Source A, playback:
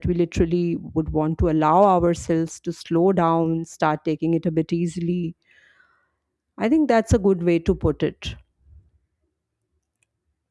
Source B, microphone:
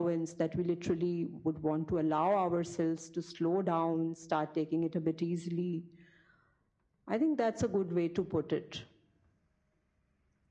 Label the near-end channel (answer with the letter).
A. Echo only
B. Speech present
A